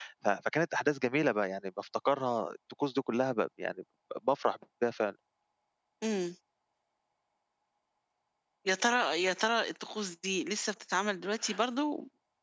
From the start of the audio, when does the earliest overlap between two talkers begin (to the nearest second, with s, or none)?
none